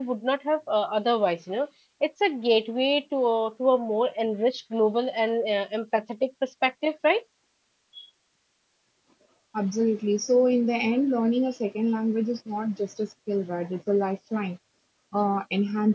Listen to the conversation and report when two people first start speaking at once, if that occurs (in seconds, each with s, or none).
none